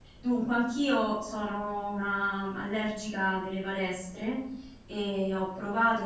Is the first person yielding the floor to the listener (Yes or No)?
No